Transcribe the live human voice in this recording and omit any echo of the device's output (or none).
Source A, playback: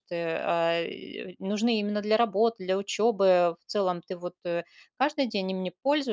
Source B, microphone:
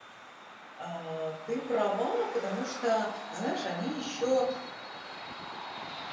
А, ты права, потому что, знаешь, они еще,